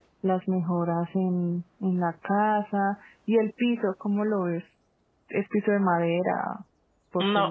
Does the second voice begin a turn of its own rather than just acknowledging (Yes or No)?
Yes